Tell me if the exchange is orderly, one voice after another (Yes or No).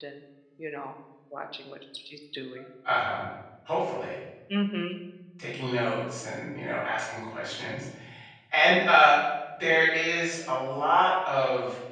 Yes